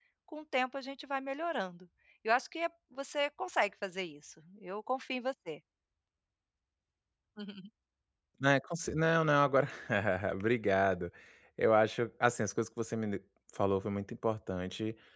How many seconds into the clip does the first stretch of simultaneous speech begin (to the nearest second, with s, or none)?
none